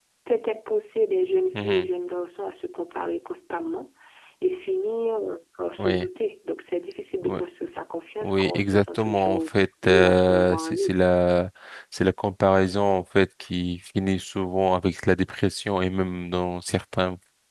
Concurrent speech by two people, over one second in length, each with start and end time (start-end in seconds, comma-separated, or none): 8.2-11.0